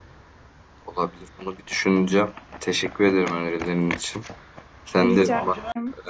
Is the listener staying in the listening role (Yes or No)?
Yes